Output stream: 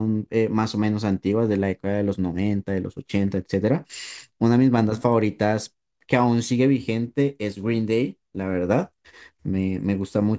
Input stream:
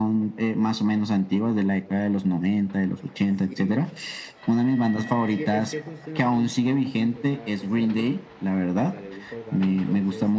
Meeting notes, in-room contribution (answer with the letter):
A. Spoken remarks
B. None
A